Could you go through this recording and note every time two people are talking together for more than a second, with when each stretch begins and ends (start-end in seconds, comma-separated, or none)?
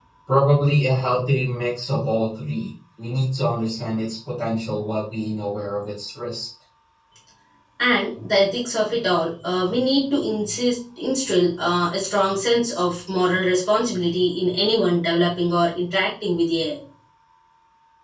none